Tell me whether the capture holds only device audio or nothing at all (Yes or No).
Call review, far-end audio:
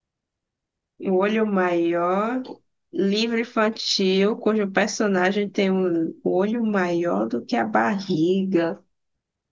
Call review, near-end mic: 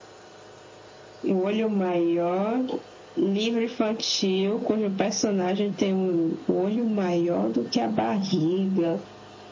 Yes